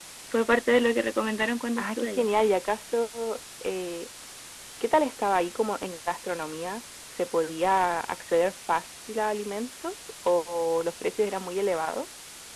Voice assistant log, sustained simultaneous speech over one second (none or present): none